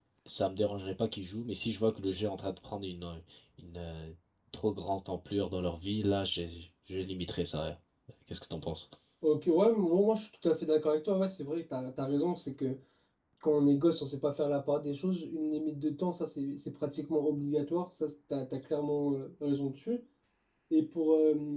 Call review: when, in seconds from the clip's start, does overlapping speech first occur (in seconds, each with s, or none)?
none